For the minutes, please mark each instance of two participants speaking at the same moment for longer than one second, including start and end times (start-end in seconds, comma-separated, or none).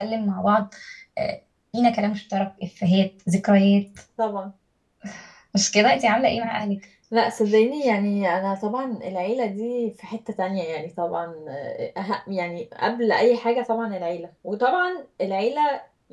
none